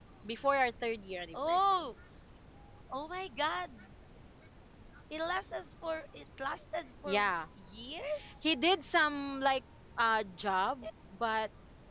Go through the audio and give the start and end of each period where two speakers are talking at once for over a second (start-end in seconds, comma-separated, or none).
none